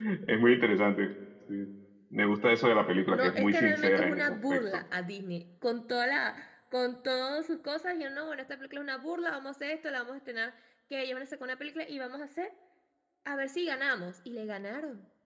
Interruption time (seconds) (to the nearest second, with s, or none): 3 s